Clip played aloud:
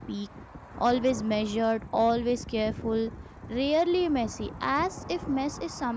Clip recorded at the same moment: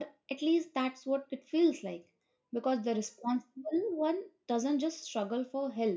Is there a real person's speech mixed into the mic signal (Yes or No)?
Yes